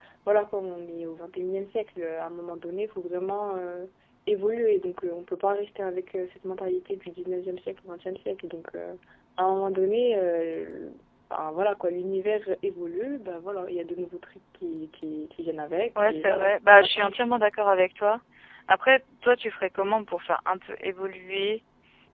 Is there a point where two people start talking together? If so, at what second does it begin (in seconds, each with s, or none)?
15.9 s